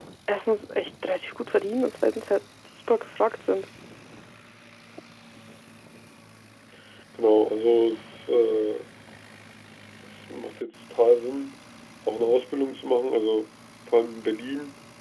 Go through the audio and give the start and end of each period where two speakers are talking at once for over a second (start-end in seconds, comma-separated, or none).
none